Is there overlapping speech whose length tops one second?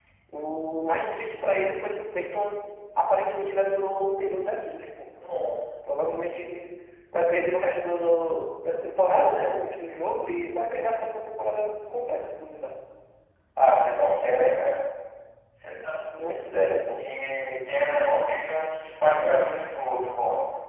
No

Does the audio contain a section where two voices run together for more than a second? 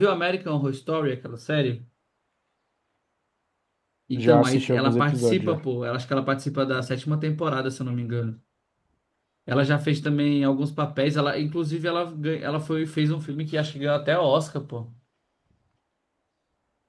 Yes, from 4.1 s

